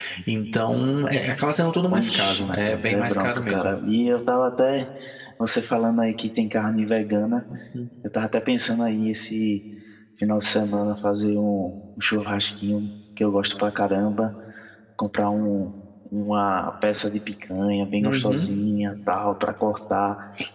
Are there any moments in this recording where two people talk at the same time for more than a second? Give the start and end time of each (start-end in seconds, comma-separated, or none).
1.9-3.7